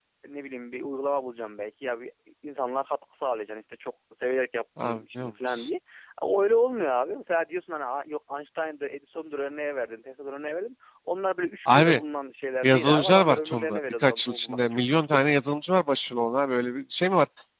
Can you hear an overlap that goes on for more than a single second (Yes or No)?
Yes